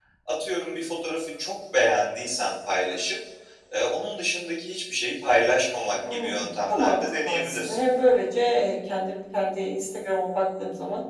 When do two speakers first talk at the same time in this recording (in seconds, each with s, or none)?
6.0 s